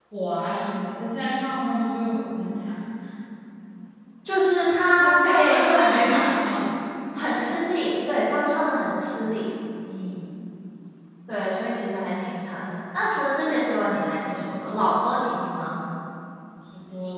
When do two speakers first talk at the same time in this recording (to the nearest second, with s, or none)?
5 s